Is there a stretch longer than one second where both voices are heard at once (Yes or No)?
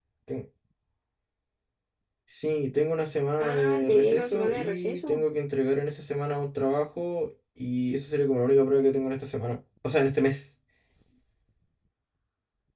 Yes